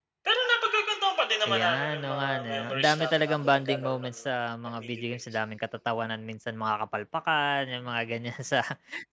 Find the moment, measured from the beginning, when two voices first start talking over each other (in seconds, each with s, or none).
1.4 s